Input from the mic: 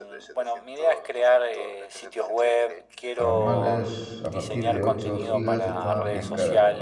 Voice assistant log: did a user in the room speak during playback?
Yes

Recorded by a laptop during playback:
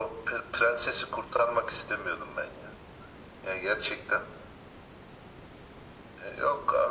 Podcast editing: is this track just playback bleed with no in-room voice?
Yes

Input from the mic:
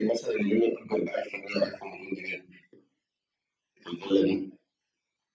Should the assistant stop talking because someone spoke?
No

